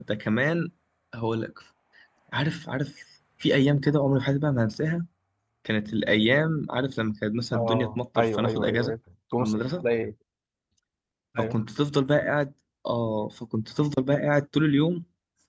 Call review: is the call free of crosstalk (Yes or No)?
No